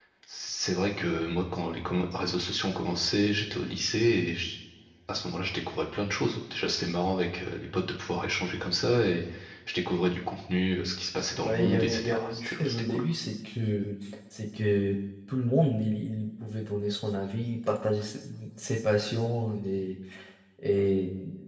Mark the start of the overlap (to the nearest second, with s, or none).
11 s